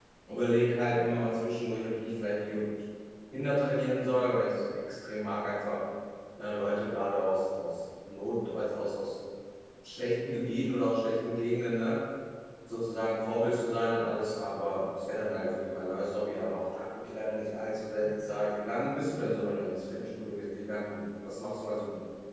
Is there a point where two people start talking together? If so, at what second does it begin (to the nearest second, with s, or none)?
none